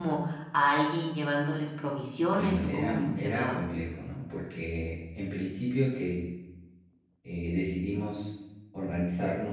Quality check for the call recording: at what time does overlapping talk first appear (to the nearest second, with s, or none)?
2 s